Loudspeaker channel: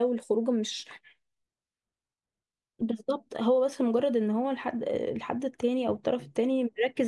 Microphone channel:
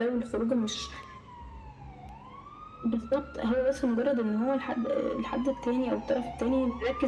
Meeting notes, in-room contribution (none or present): none